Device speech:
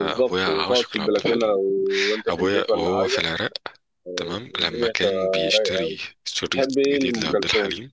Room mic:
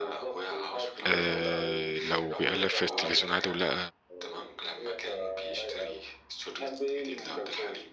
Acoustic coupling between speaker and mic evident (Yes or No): Yes